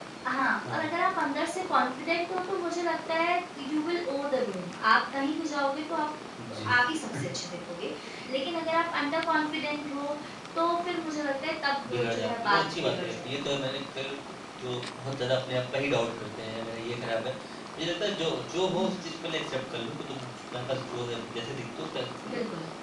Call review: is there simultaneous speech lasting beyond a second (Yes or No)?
Yes